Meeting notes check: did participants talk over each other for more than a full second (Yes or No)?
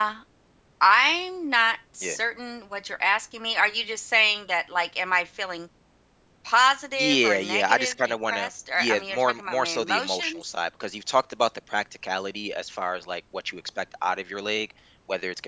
Yes